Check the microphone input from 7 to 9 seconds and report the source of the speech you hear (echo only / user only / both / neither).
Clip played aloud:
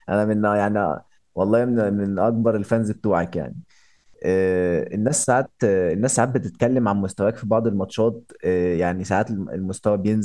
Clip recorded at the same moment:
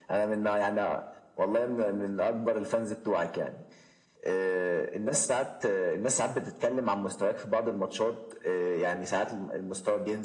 echo only